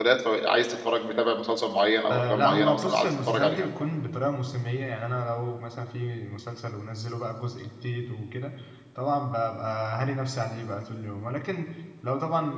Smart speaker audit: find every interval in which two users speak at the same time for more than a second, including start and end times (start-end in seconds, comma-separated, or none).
2.1-3.6